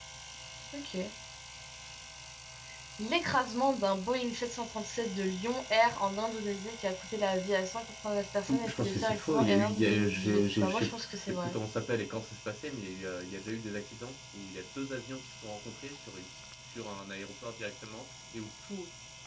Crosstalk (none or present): present